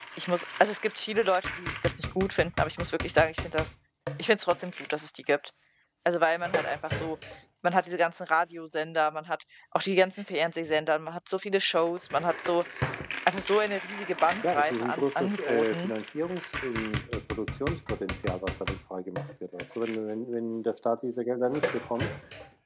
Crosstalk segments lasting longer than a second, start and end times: 14.5-15.9

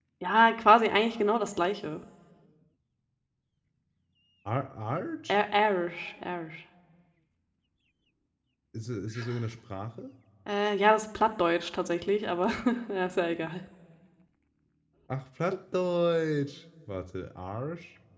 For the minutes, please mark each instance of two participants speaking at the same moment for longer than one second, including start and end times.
none

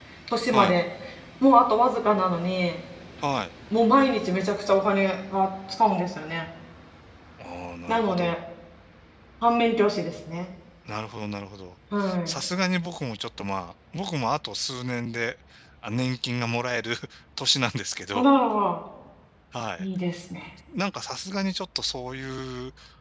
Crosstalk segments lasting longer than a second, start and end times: none

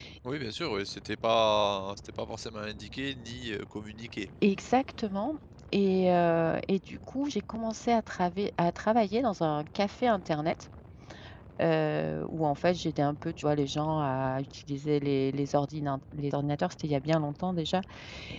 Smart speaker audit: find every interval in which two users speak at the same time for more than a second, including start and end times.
none

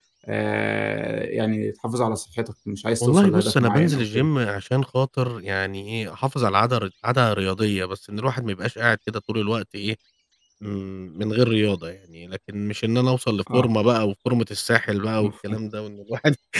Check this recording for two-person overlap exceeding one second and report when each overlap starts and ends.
3.0-4.3

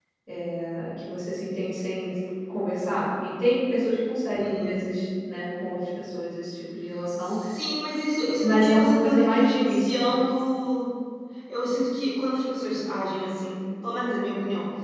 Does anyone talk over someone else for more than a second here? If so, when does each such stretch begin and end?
8.4-10.1

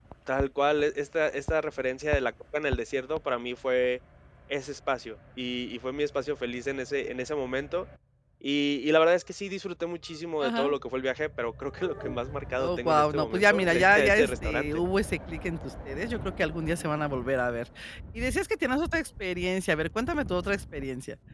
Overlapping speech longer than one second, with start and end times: 12.6-14.7

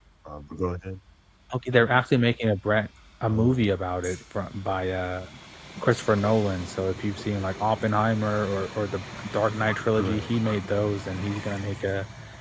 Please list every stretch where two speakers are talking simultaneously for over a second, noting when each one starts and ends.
none

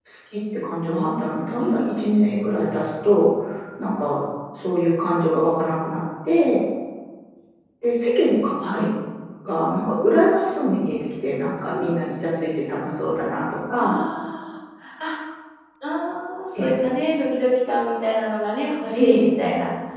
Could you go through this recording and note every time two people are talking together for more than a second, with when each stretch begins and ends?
none

